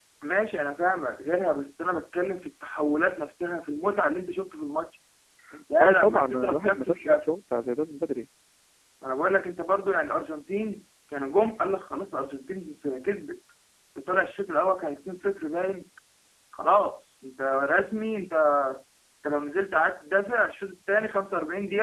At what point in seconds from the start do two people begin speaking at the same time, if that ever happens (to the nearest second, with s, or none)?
6 s